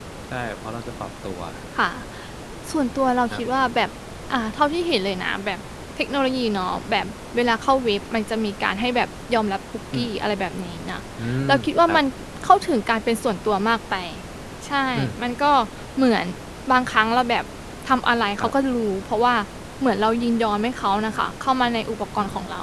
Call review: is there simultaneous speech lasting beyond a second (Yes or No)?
No